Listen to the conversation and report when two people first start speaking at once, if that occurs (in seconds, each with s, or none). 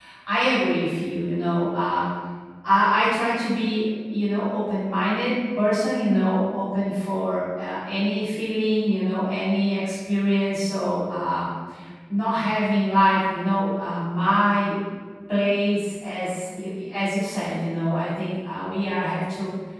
none